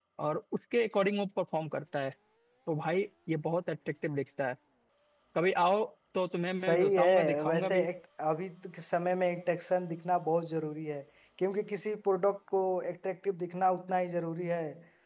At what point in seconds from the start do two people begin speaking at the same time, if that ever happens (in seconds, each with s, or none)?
6.5 s